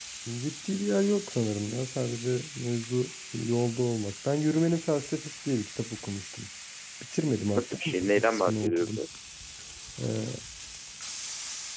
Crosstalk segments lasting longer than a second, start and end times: 7.5-9.0

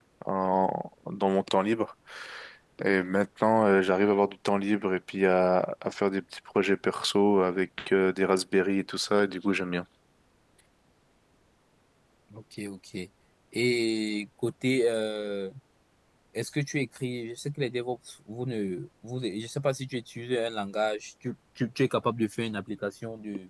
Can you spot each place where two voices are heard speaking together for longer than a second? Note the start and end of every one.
none

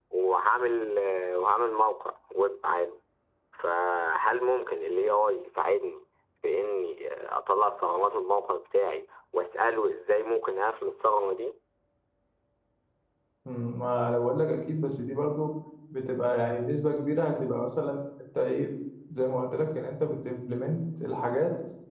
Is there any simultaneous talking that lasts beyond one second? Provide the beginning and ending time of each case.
none

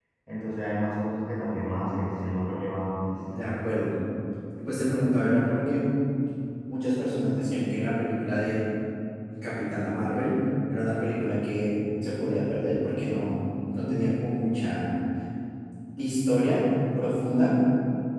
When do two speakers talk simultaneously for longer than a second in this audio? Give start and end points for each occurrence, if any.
none

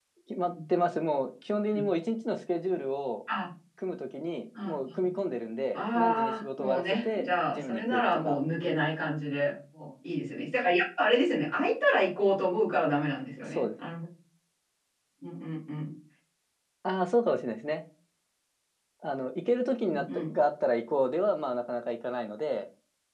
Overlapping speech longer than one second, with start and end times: 5.7-8.4

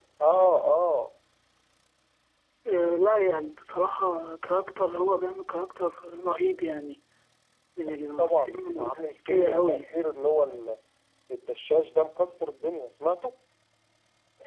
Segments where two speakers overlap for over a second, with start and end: 7.9-9.8

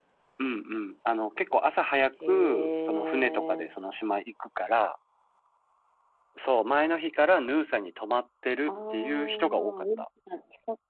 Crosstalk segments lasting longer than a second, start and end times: 2.3-3.8, 8.7-10.1

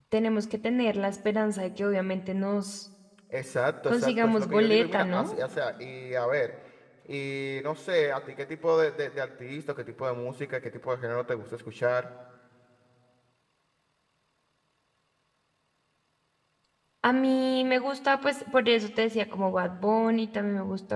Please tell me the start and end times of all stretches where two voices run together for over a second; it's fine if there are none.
3.9-5.3

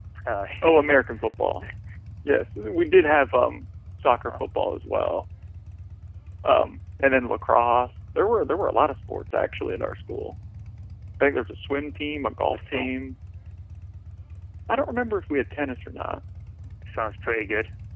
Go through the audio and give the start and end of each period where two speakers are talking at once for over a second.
none

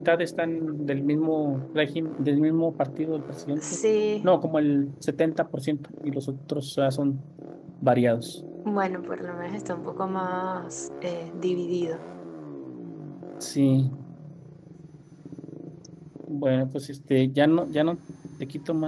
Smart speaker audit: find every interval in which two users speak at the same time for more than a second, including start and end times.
none

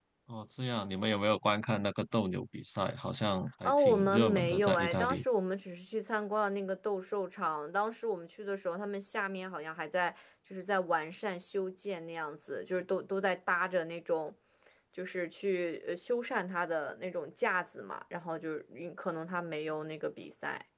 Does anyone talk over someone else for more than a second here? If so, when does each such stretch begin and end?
3.6-5.2

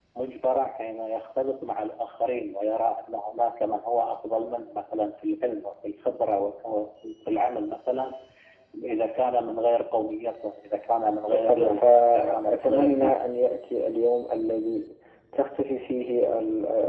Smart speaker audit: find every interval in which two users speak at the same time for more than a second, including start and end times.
11.3-13.1

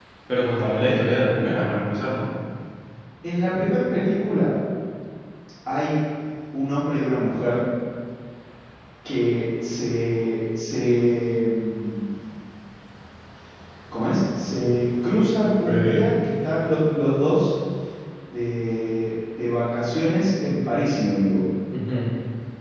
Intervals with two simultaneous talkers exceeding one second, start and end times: none

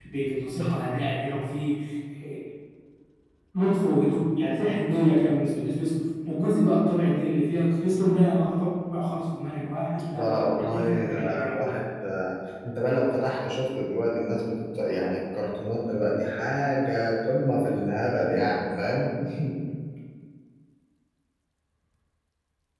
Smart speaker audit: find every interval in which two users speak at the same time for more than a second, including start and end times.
10.1-11.8

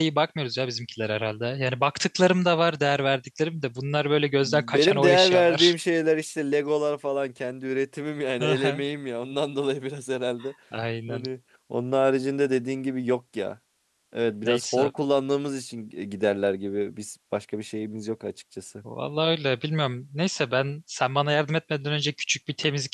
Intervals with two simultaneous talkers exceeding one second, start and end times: 4.4-5.7

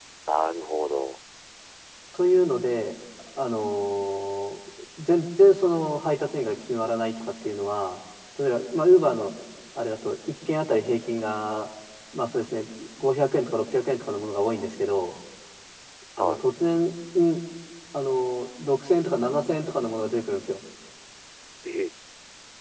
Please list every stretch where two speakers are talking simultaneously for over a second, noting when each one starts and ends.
none

